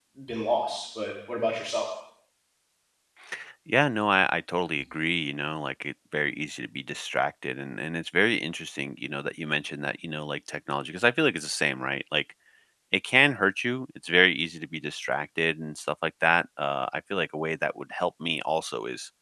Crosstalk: none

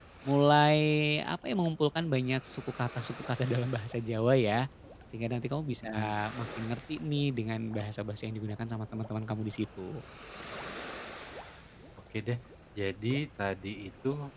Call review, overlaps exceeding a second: none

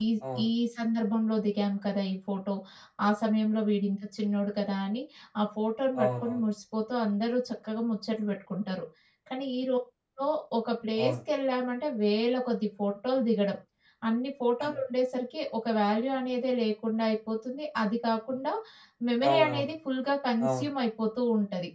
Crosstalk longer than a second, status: none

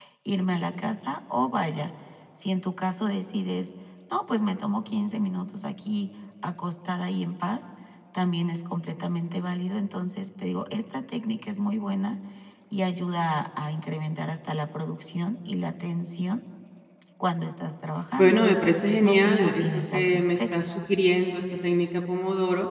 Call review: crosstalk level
present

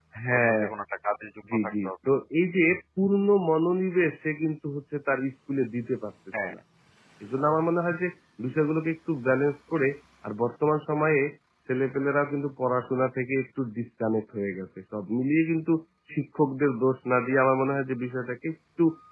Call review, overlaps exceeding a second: none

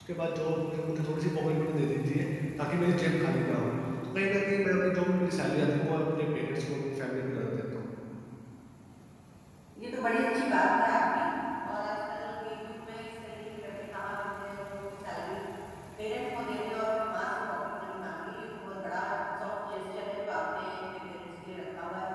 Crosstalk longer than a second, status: none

